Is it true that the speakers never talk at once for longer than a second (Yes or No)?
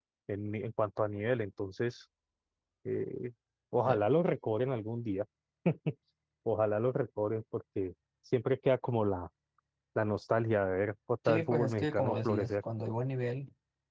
No